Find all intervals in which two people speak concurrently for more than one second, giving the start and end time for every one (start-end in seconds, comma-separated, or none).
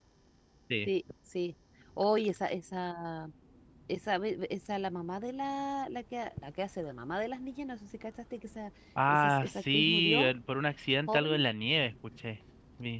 9.1-10.3